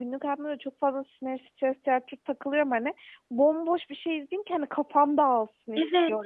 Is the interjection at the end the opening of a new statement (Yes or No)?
No